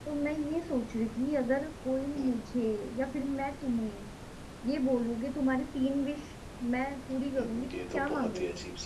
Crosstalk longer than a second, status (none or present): present